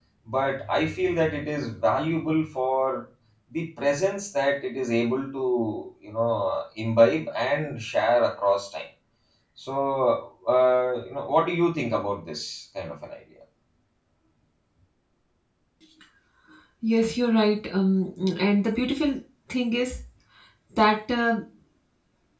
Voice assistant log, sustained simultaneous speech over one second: none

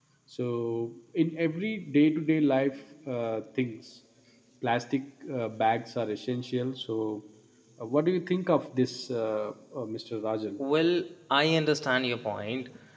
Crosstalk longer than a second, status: none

